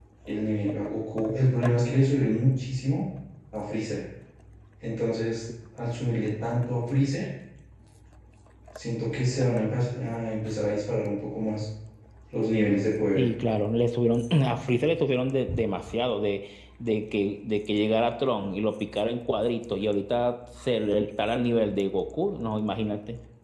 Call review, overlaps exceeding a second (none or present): none